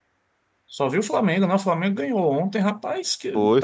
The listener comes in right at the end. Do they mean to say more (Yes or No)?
No